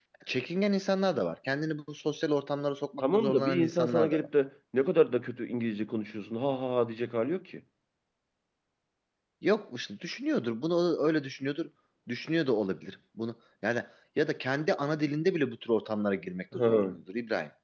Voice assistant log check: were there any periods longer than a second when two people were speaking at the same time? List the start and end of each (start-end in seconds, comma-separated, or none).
3.0-4.3